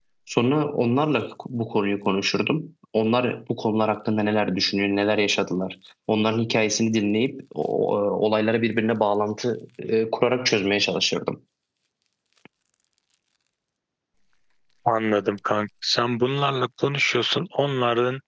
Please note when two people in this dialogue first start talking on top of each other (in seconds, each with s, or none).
none